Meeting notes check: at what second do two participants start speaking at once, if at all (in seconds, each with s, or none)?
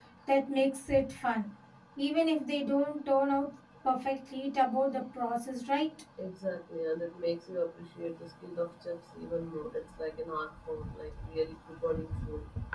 none